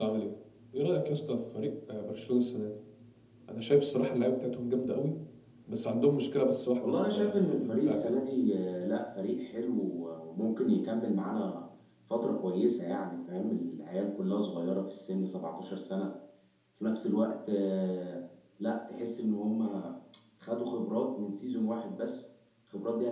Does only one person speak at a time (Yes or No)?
No